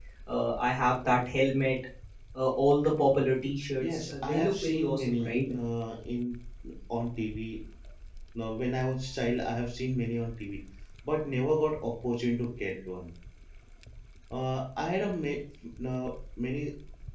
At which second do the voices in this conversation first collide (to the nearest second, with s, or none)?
4 s